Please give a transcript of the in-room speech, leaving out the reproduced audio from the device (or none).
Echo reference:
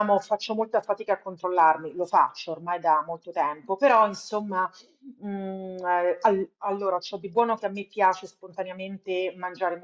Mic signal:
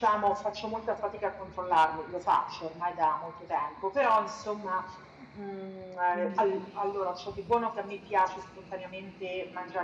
Quindi per me,